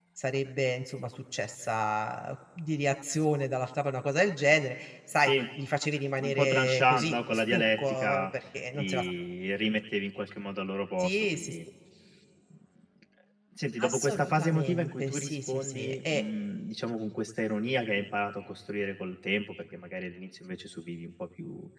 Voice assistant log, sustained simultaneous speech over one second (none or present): present